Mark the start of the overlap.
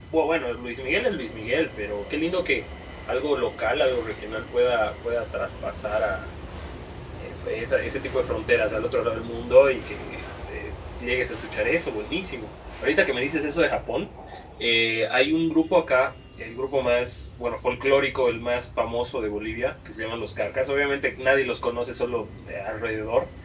none

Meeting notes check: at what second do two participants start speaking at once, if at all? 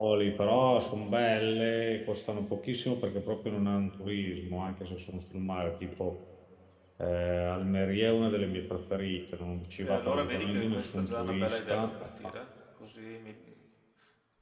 9.8 s

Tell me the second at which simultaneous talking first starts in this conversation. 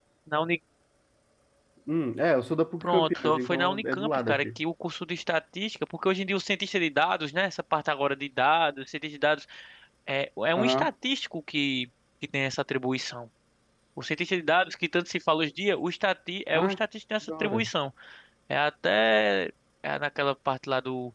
2.8 s

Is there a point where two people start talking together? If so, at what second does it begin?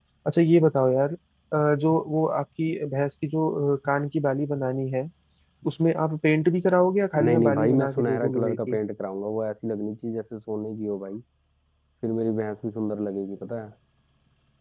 7.1 s

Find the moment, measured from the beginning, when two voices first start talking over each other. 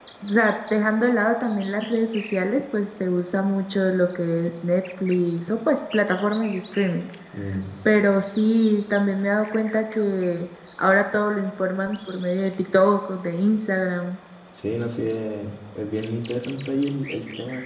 none

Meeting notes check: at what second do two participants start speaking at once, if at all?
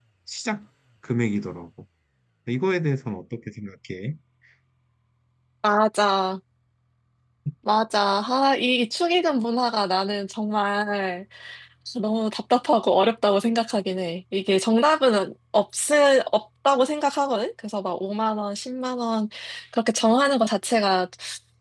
none

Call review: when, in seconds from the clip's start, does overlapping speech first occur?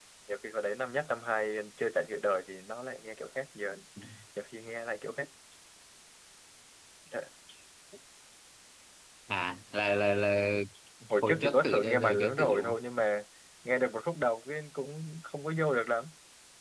11.2 s

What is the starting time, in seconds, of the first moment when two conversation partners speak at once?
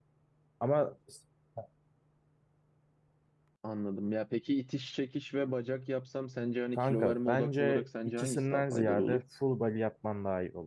6.7 s

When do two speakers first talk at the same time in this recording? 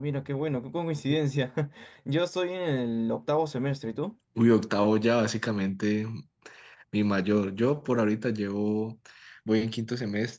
none

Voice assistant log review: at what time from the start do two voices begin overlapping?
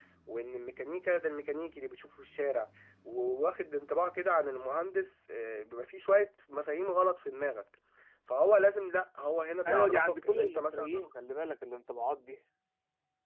9.6 s

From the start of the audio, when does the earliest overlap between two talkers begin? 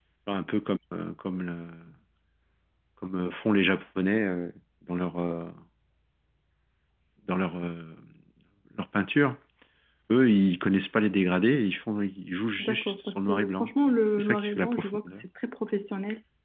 12.6 s

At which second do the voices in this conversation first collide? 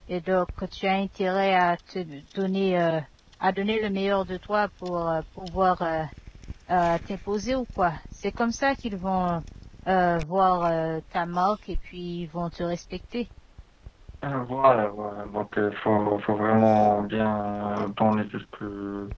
none

